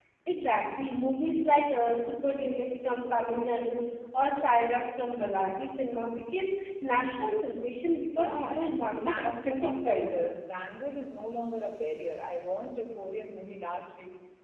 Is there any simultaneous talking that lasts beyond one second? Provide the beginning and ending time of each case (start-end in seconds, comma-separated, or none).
8.2-10.2